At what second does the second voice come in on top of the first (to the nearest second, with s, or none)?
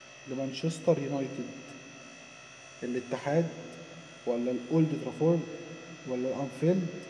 none